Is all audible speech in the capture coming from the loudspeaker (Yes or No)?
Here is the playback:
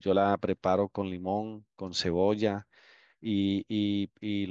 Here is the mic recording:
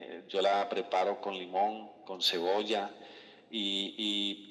Yes